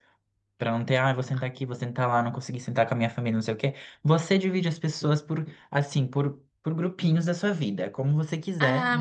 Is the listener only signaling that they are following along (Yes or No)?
No